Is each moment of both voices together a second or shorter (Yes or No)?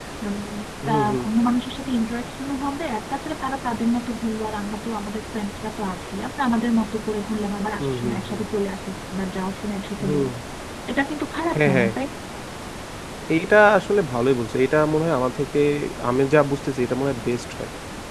Yes